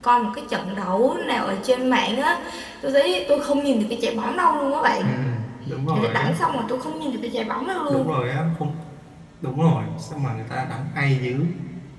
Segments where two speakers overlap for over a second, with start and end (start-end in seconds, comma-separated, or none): none